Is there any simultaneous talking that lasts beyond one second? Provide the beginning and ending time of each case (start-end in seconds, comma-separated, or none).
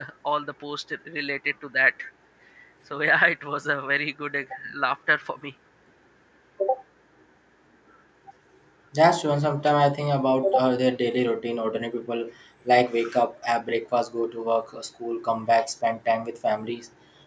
none